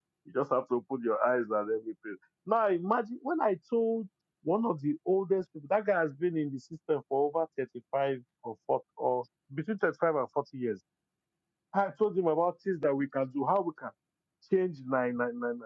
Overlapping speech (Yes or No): No